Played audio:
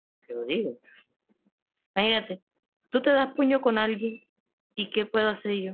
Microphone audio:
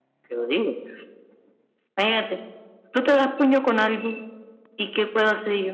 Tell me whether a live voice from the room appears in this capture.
No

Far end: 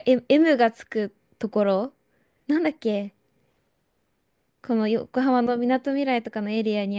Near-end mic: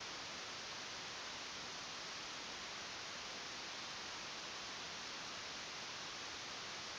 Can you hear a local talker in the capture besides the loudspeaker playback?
No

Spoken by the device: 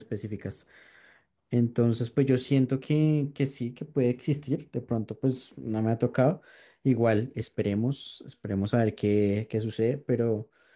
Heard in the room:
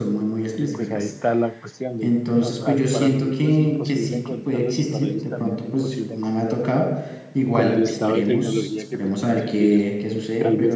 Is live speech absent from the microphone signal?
No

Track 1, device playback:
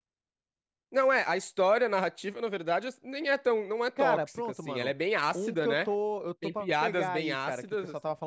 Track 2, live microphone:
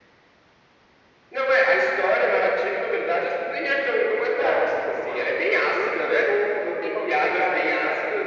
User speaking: No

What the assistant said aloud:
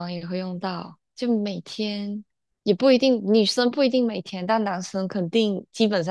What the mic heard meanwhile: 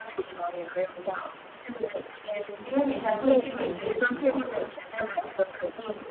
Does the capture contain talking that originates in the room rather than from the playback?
Yes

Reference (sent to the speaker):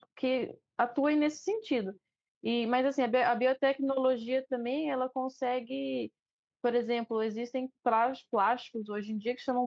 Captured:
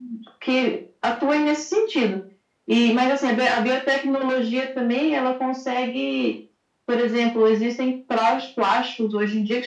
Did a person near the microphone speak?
No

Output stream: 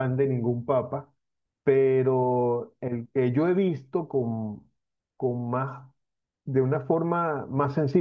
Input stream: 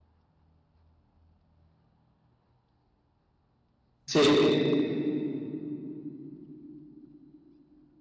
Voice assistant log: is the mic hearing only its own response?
No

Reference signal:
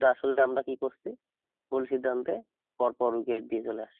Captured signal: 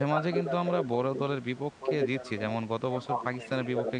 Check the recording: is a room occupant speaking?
Yes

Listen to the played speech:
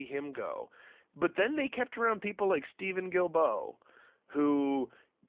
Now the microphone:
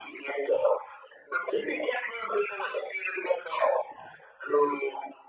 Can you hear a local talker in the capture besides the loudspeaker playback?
No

